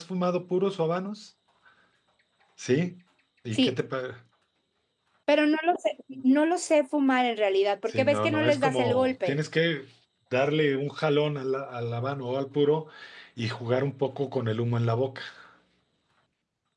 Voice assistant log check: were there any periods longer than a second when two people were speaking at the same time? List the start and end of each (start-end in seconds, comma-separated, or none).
7.9-9.3